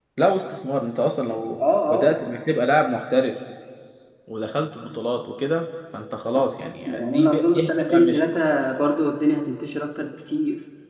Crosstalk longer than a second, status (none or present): present